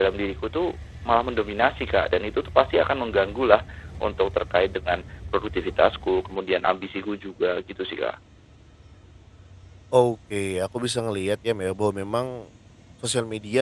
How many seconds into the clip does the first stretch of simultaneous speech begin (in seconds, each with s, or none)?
none